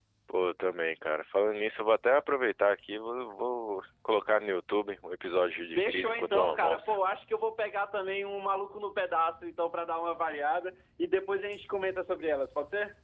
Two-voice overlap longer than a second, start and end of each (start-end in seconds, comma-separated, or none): 5.8-7.0